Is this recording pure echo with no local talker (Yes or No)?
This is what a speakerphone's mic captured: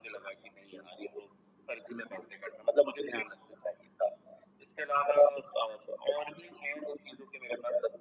Yes